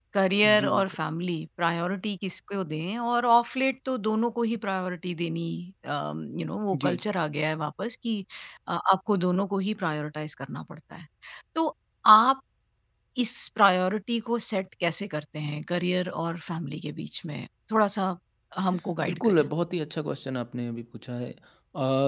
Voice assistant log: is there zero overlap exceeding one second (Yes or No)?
Yes